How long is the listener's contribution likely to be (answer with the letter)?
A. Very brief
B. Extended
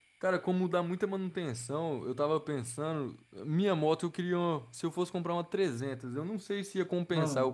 A